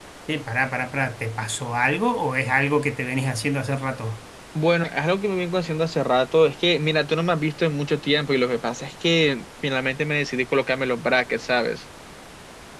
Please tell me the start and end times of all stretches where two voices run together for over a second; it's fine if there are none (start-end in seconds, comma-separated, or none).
none